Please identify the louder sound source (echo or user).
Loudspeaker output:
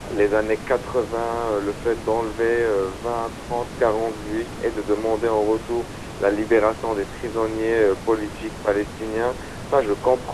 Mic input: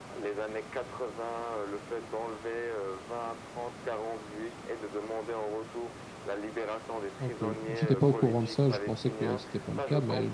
user